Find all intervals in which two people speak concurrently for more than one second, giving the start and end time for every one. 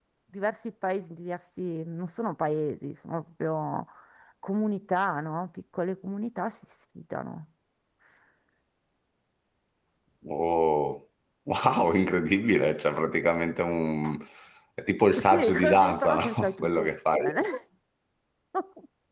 15.2-17.2

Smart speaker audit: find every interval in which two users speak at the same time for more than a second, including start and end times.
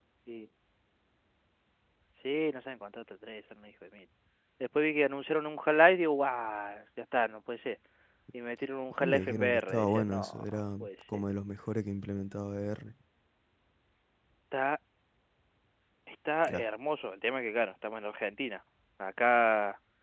9.0-11.2

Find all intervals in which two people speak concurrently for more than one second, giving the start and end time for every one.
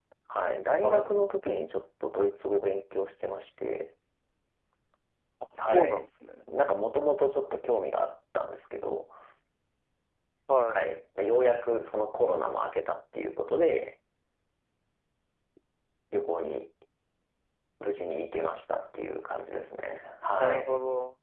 none

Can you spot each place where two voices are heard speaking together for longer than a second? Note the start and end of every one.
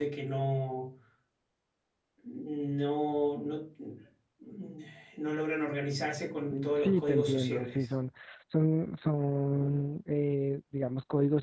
6.5-7.8

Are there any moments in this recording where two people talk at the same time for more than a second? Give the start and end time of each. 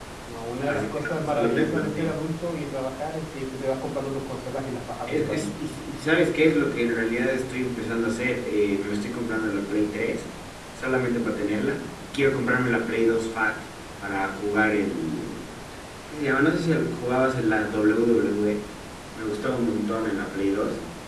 0.7-2.1

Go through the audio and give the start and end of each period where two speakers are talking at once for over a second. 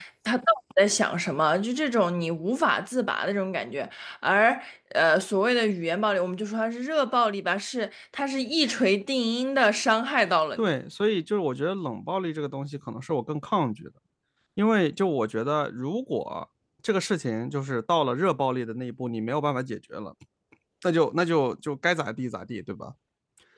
none

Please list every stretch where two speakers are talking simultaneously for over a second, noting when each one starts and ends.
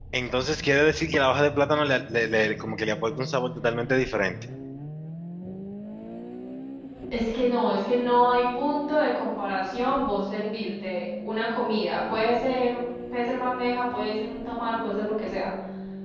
none

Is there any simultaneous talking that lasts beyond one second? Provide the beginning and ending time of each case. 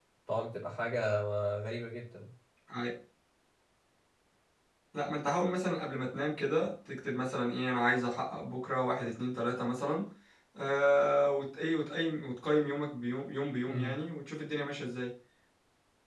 none

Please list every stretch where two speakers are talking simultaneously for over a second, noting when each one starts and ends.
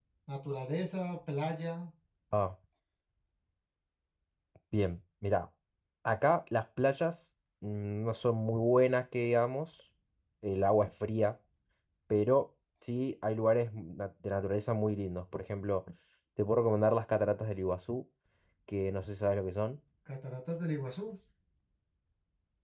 none

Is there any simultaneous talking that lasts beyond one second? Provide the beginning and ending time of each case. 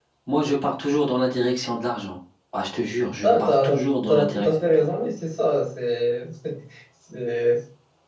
3.2-4.9

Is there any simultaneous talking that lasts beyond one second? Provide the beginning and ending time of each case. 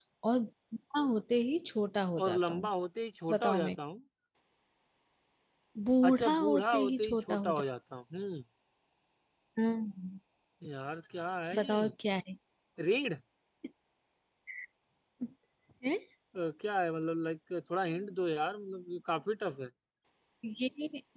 6.1-7.6

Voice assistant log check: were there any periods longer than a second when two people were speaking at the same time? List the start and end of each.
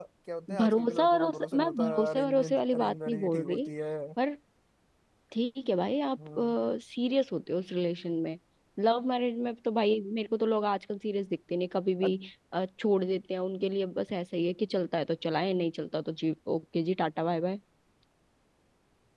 0.6-3.7

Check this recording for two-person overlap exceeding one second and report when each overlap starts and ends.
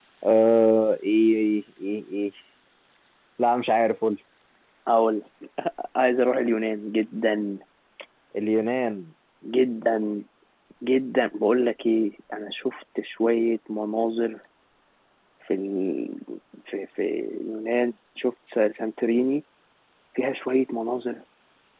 none

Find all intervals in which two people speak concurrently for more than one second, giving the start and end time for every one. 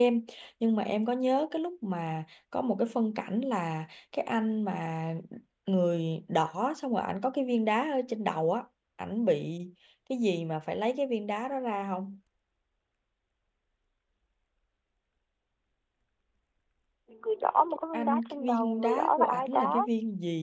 17.9-19.7

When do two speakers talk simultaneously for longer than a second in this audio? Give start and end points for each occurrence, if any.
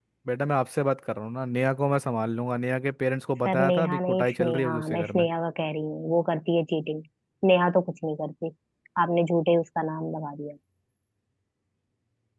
3.5-5.2

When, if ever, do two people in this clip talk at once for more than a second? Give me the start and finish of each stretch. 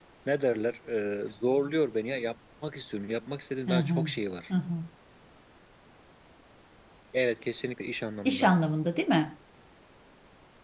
none

